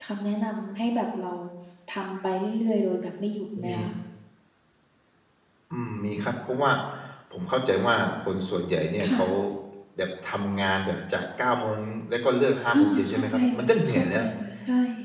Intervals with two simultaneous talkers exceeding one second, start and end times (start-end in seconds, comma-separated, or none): 12.7-14.2